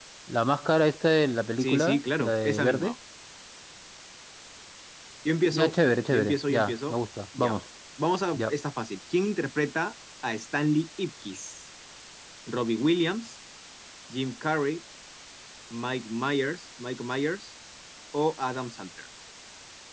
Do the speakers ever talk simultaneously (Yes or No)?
Yes